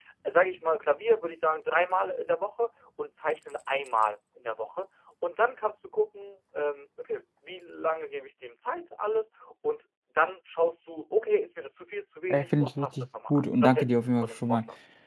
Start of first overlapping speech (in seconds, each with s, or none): 12.3 s